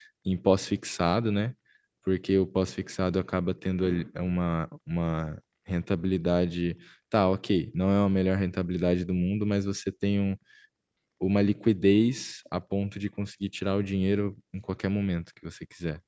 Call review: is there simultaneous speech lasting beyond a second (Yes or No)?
No